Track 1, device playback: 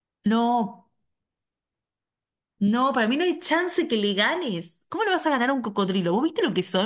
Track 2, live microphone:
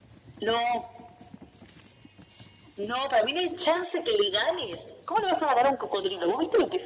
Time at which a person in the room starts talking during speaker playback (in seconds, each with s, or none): none